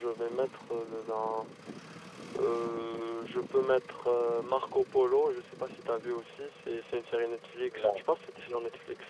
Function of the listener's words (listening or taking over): listening